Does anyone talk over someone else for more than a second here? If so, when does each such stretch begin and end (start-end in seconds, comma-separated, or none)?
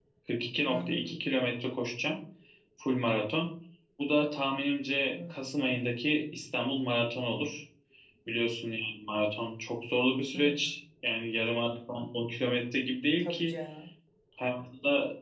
none